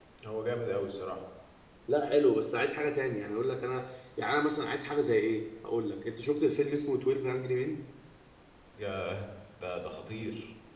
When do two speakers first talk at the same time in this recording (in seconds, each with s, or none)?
none